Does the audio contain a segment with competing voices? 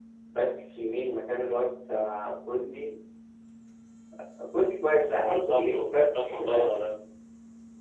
Yes, from 5.2 s

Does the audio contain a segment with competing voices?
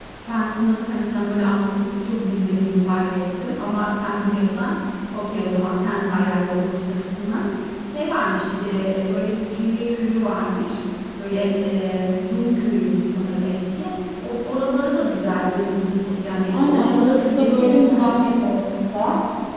Yes, from 16.5 s

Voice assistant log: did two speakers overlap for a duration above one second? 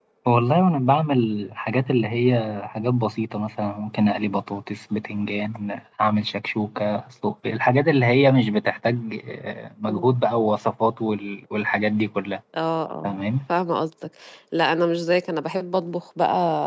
No

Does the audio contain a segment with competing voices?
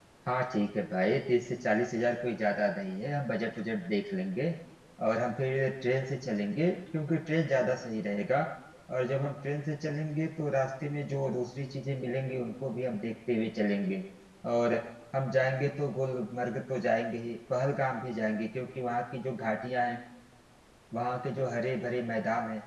No

